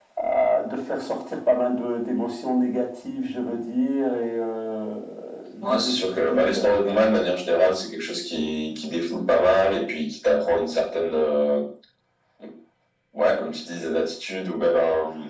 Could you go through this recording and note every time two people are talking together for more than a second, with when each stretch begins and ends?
5.6-7.2

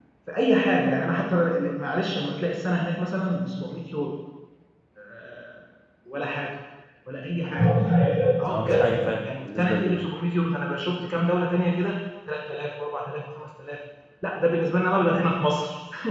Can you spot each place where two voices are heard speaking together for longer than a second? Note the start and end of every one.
8.5-10.0

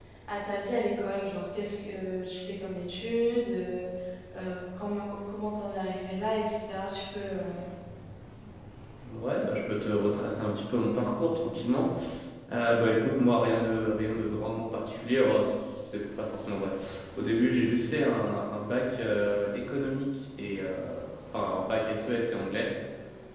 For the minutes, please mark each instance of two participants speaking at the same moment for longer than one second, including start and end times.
none

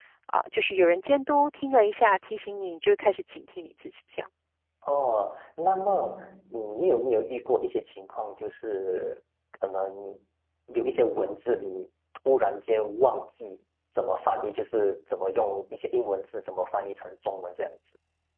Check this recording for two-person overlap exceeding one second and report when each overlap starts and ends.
none

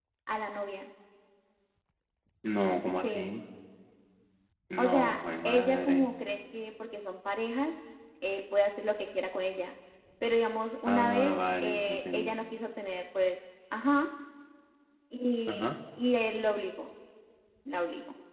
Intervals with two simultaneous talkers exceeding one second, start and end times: 4.8-6.1, 10.9-12.3

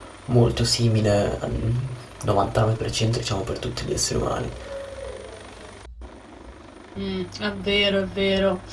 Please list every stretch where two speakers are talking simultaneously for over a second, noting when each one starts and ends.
none

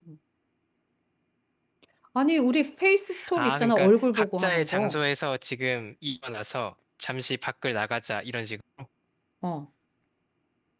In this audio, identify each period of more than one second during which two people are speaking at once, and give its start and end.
3.3-5.0

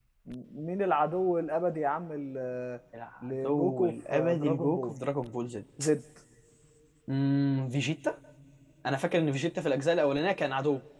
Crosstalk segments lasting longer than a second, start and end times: 3.4-5.0

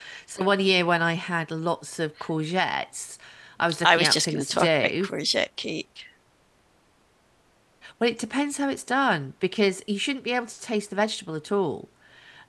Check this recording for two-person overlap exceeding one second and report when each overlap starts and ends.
3.8-5.1

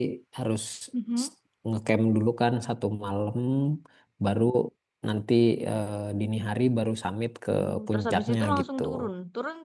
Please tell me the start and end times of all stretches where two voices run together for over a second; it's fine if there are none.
7.5-8.8

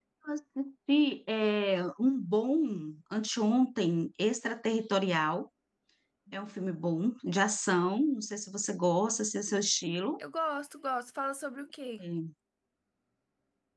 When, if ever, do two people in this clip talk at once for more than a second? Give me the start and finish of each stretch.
none

